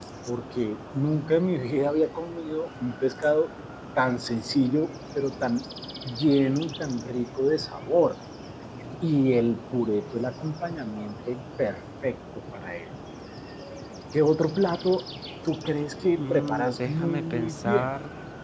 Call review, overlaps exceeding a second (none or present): present